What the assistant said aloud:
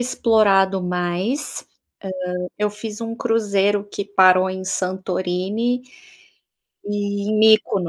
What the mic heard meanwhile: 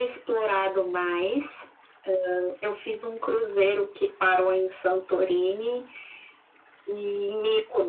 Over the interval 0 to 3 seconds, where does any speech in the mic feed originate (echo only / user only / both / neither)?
echo only